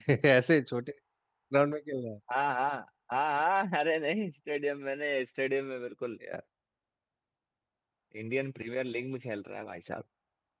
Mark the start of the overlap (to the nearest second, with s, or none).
none